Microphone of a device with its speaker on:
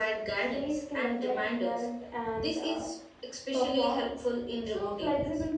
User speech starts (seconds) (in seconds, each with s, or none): none